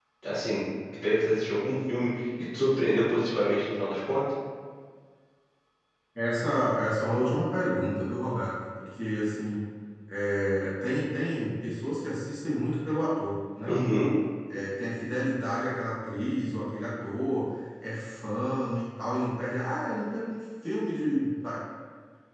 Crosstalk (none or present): none